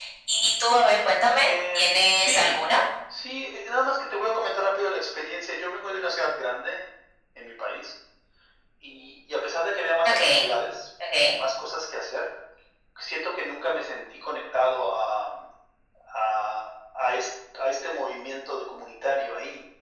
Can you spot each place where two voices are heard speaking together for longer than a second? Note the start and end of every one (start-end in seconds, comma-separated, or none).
1.4-2.6